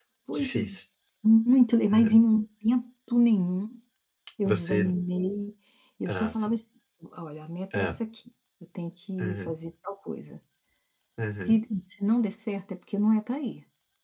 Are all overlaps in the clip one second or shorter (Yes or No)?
Yes